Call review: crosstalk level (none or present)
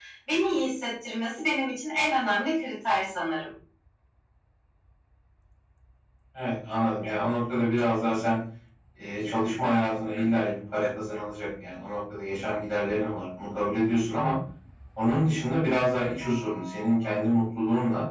none